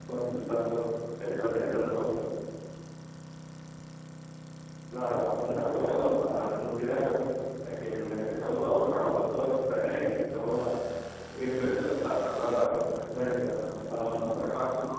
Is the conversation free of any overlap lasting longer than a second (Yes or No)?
No